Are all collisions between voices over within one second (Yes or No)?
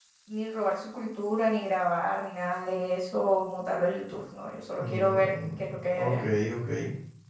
No